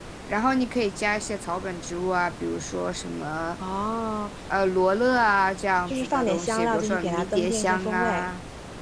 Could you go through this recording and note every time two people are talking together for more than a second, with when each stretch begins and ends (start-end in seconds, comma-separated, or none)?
5.9-8.3